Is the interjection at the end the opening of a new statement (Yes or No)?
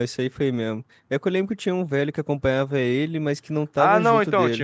Yes